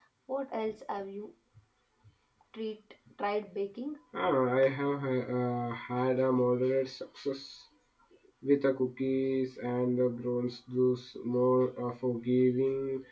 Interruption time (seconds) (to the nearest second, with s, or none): none